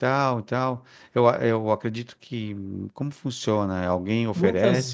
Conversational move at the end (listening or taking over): taking over